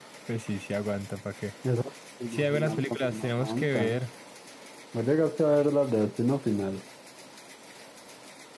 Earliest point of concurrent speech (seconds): 2.3 s

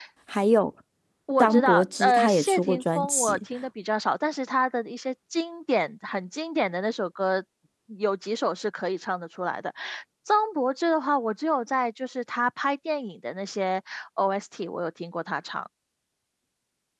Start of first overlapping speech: 1.4 s

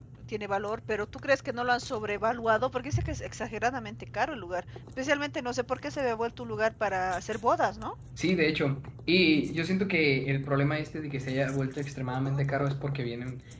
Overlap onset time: none

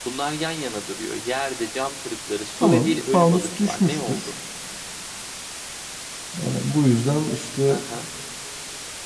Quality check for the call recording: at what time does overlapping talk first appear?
2.6 s

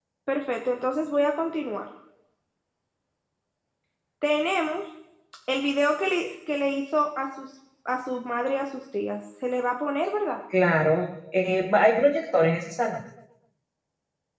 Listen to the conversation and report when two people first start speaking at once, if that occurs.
none

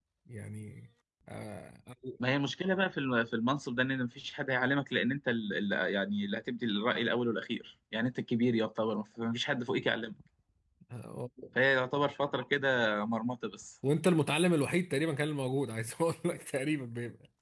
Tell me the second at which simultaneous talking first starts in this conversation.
none

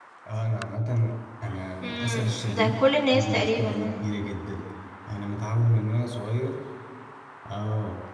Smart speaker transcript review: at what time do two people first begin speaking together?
1.8 s

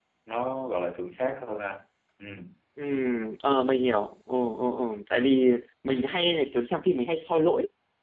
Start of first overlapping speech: none

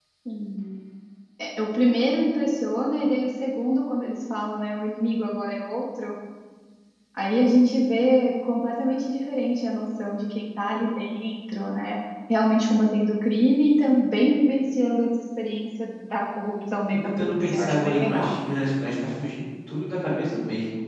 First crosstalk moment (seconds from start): 17.0 s

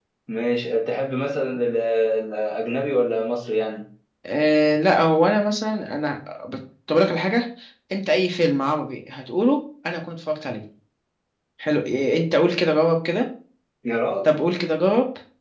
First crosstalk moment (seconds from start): none

